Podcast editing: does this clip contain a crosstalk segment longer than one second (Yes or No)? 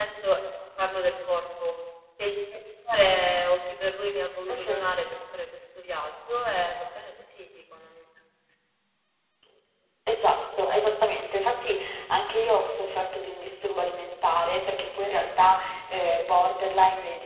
No